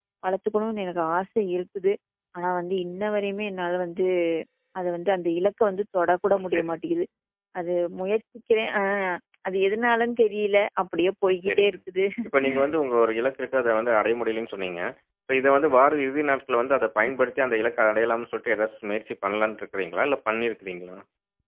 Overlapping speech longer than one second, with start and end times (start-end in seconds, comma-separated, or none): none